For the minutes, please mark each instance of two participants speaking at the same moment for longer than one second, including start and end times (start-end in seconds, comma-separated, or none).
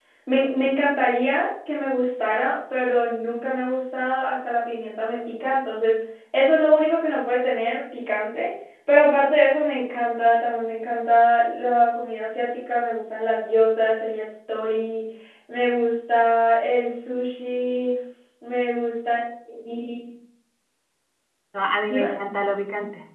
none